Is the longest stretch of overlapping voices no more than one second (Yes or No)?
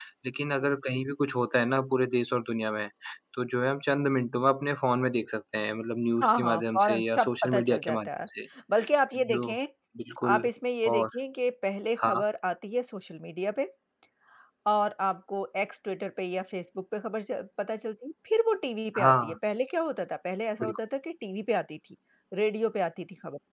No